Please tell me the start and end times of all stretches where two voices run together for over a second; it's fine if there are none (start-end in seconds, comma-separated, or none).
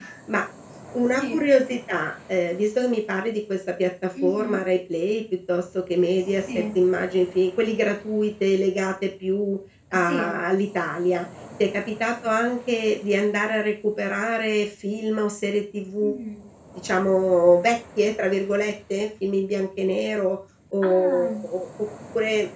none